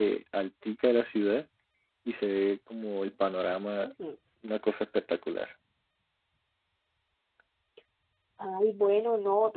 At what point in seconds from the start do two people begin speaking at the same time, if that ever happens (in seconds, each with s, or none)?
none